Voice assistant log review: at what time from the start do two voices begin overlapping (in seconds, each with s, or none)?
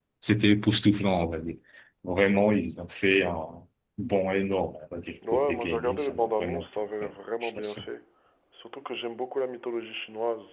5.2 s